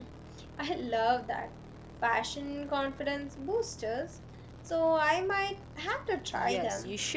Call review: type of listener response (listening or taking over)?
taking over